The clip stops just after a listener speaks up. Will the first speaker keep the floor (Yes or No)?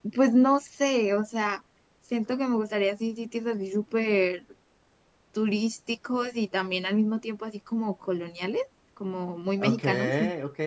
No